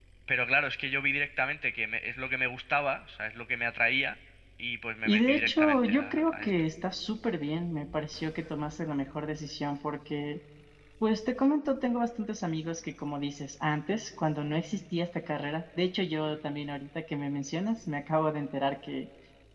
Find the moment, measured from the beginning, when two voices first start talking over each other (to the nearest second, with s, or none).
5 s